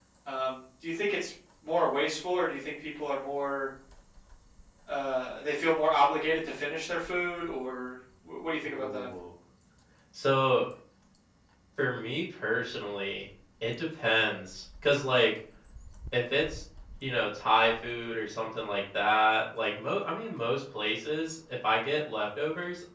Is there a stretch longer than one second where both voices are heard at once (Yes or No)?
No